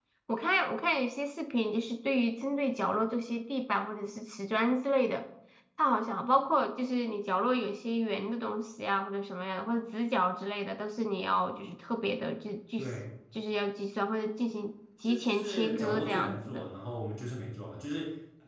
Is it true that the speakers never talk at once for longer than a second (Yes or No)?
No